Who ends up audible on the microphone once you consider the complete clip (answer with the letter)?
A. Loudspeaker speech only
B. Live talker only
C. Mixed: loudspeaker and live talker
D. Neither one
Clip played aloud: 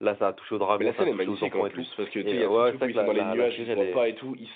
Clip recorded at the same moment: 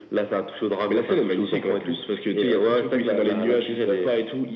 A